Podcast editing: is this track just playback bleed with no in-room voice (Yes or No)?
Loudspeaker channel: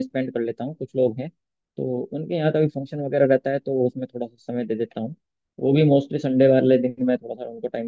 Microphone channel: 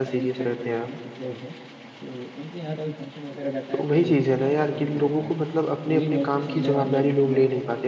No